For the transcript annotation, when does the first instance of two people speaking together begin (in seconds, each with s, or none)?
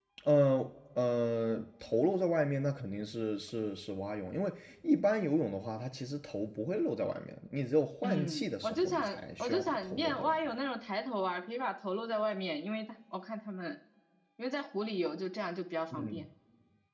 8.0 s